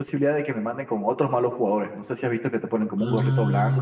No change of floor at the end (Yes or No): No